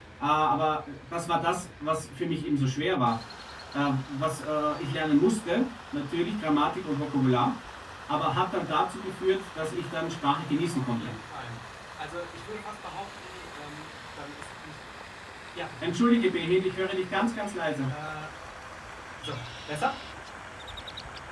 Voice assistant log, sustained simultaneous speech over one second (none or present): none